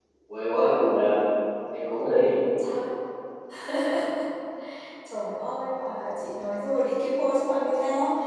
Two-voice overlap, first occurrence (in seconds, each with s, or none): none